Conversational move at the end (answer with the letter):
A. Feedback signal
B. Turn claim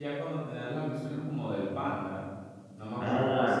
B